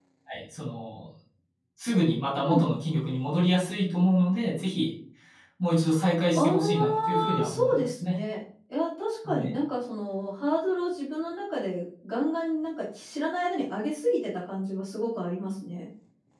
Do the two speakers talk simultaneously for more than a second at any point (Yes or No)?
Yes